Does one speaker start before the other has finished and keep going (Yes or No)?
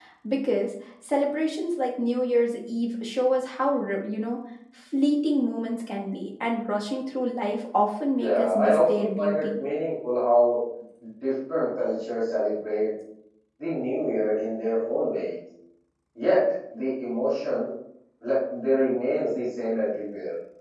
Yes